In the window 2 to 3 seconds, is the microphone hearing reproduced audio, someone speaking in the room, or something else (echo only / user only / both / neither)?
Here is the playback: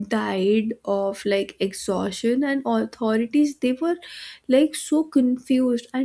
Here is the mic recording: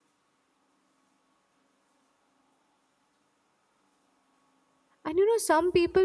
neither